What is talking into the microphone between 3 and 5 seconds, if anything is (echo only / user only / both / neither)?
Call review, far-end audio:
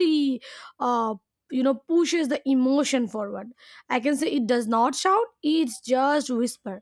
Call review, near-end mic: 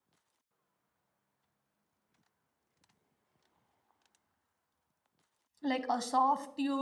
neither